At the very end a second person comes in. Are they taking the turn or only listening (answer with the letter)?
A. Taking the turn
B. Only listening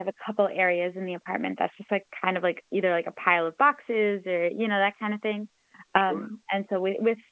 B